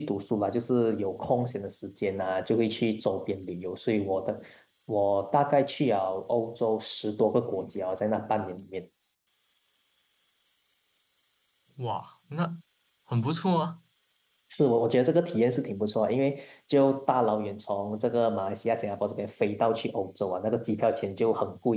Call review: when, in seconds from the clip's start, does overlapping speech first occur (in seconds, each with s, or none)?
none